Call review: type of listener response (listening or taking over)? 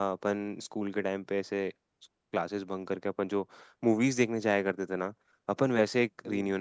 listening